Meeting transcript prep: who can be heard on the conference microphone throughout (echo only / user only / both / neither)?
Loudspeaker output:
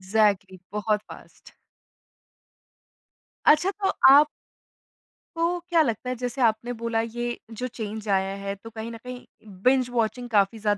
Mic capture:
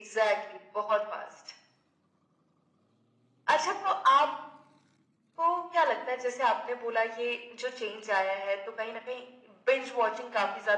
echo only